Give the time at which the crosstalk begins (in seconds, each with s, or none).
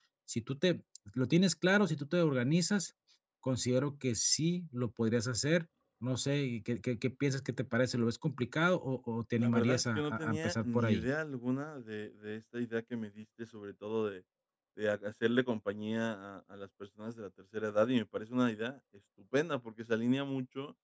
9.4 s